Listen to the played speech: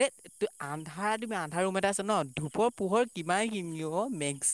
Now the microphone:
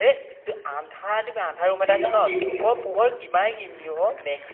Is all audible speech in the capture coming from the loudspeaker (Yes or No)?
No